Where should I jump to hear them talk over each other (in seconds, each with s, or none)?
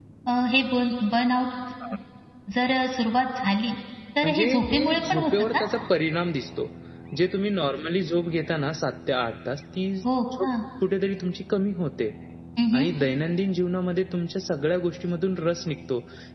4.2 s